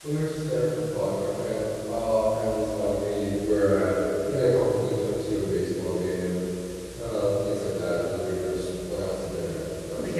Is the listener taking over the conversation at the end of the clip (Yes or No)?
No